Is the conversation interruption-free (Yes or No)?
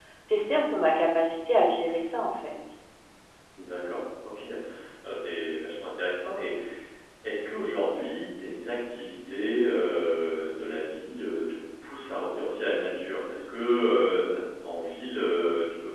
Yes